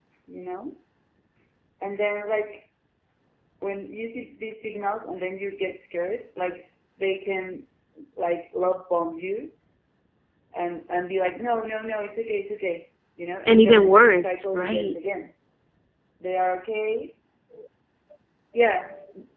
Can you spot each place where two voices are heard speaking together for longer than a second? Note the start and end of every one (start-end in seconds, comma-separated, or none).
13.4-15.0